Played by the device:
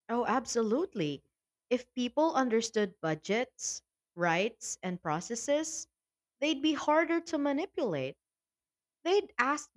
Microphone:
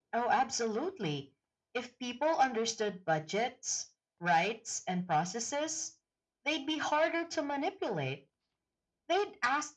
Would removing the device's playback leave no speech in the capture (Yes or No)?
Yes